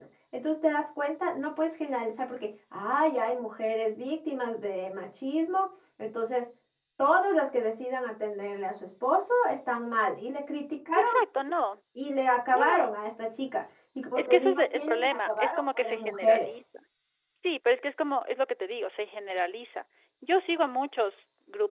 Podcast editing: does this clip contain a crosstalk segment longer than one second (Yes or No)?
Yes